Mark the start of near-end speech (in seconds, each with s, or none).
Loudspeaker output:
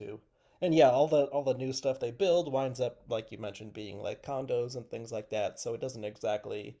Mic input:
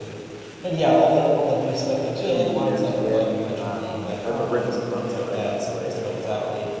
2.1 s